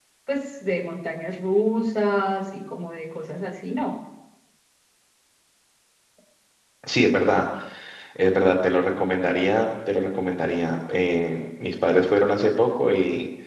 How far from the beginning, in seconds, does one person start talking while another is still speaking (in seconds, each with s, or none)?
none